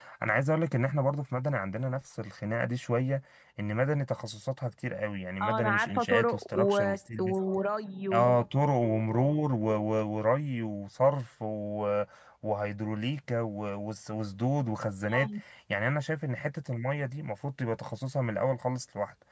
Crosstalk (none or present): present